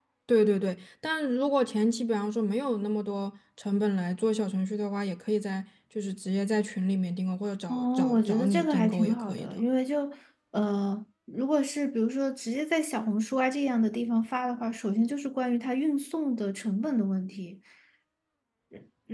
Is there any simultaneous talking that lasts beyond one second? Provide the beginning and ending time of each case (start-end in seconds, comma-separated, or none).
7.7-9.6